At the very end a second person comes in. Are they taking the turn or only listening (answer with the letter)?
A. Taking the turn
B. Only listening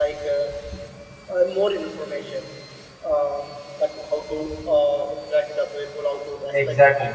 B